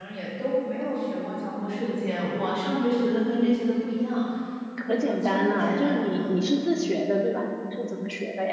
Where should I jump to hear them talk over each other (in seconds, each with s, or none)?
4.8 s